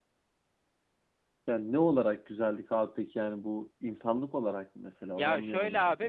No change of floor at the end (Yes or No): No